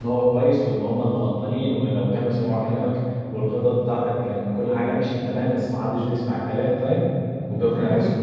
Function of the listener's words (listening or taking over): taking over